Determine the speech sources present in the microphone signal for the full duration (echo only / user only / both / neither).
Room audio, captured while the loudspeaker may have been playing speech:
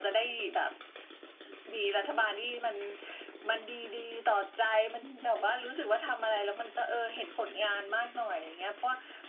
echo only